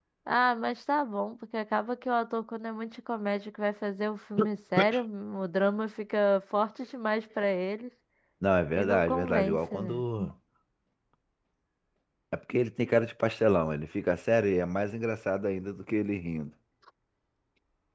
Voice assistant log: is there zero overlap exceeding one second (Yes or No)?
No